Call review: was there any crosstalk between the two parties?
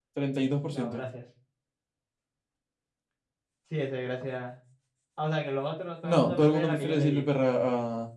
Yes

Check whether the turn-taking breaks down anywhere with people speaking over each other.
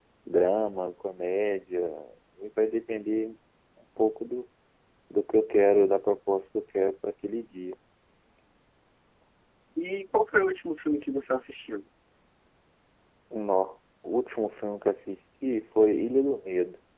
No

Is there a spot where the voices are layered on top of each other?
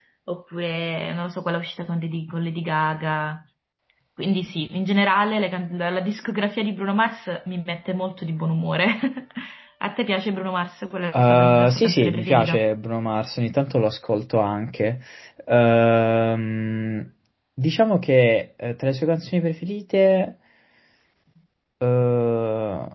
Yes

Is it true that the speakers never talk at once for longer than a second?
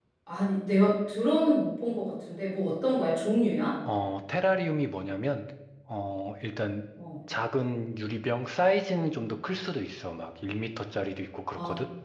Yes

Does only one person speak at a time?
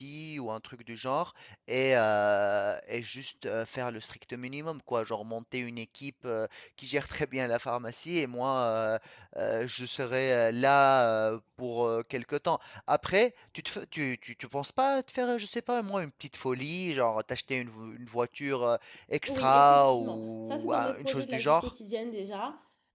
No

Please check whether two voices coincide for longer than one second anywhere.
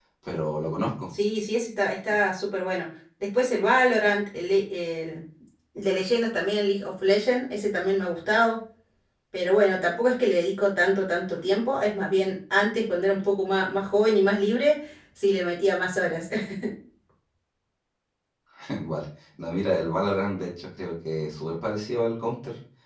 No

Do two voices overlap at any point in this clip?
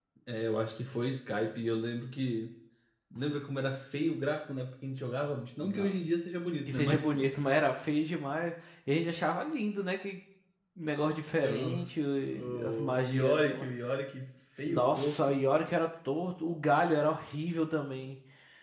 Yes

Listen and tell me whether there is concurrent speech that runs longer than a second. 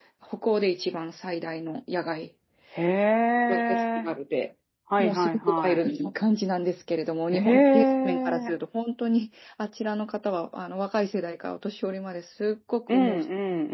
Yes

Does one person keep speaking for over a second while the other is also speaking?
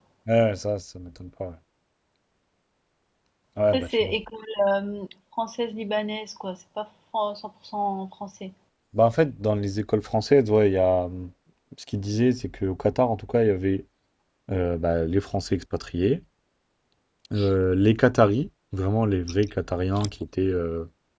No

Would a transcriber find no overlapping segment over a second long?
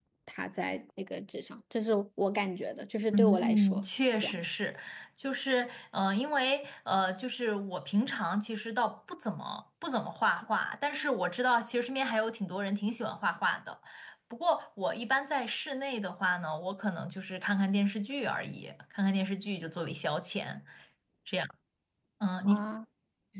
No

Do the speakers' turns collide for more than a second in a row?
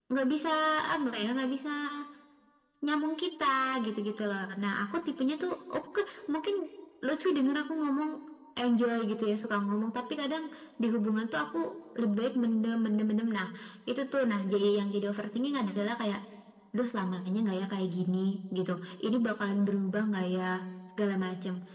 No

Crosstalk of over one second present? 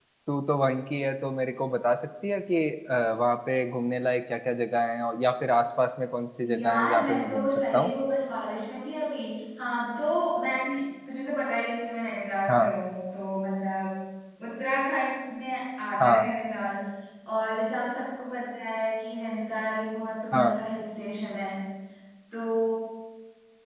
Yes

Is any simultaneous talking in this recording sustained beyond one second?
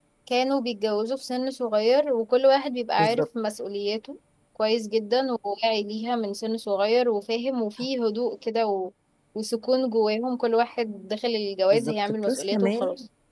Yes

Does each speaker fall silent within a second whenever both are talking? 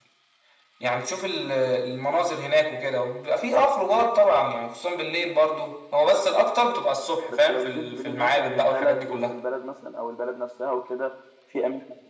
No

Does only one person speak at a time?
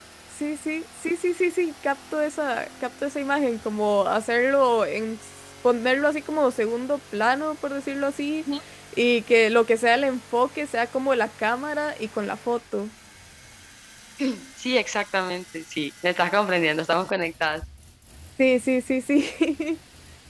Yes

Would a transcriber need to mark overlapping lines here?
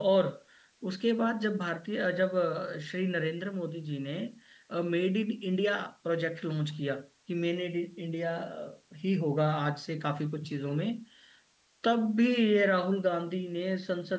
No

